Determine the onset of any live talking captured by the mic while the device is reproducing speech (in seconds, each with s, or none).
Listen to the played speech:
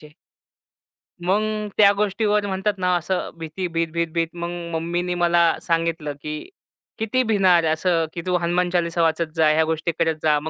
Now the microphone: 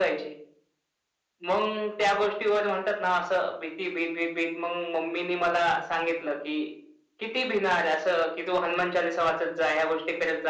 none